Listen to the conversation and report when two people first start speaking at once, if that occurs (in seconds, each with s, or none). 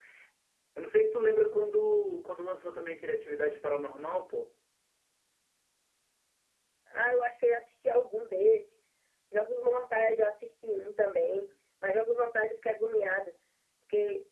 none